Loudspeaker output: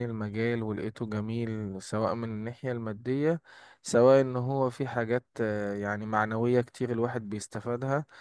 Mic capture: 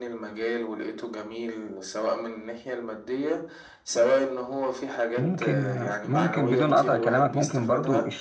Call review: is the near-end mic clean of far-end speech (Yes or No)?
No